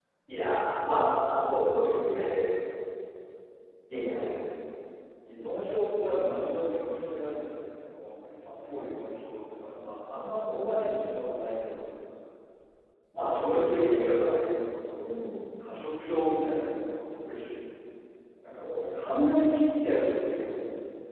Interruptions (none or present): present